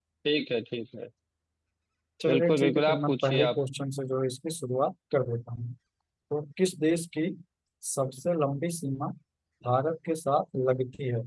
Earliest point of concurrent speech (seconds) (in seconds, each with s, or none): 2.3 s